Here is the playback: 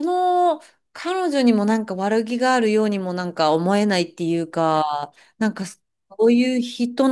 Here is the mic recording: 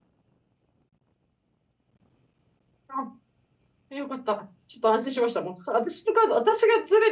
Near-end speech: present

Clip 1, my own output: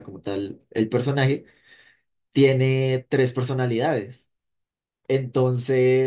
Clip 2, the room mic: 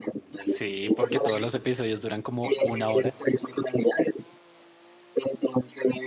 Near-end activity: present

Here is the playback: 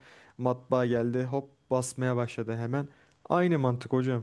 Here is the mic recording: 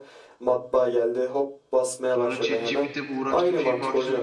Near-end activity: present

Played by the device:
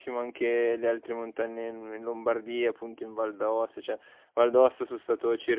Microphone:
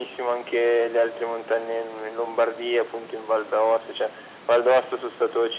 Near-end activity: none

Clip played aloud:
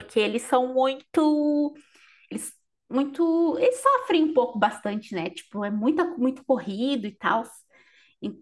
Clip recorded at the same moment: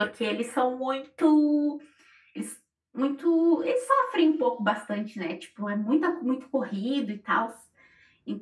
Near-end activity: none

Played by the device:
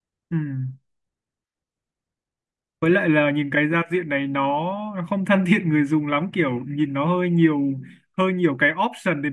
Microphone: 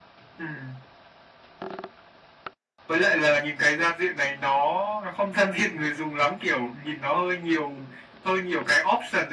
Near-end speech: none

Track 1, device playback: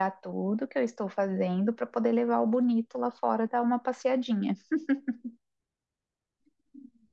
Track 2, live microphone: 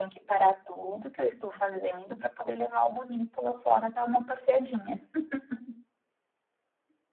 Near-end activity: none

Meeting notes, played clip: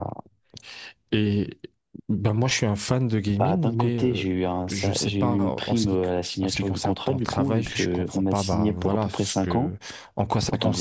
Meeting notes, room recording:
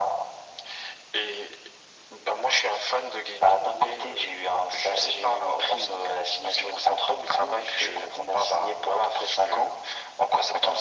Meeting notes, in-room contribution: none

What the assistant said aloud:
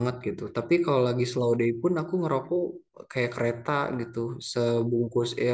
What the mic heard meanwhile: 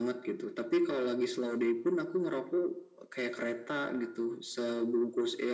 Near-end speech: none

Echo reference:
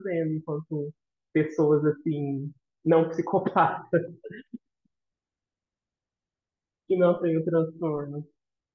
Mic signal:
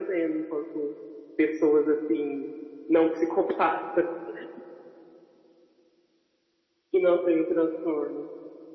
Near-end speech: none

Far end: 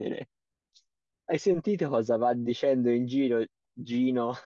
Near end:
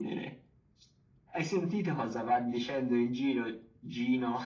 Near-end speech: none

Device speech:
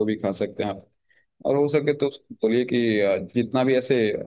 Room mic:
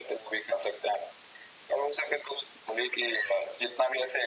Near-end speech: none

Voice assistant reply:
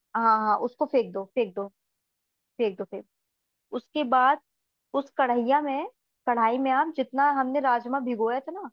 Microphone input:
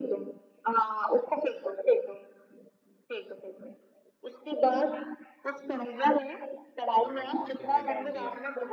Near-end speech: present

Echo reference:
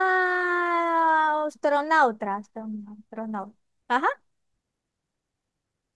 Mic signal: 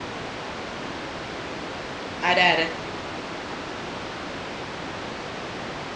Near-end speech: present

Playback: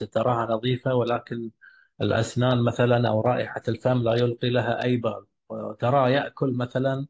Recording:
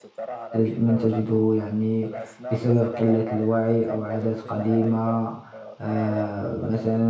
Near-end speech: present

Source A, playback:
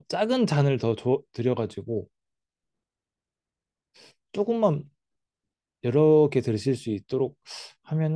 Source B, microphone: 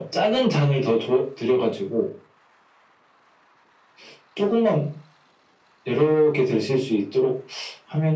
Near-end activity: none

